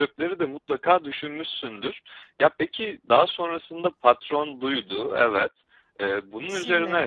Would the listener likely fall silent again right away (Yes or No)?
Yes